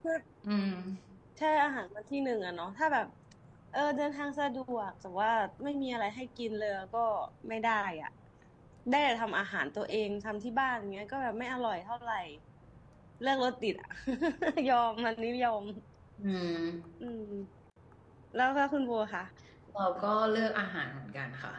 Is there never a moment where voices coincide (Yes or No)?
Yes